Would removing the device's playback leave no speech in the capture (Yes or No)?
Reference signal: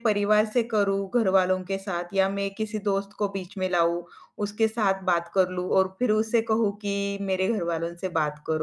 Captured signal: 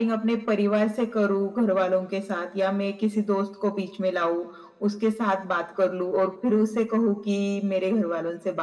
Yes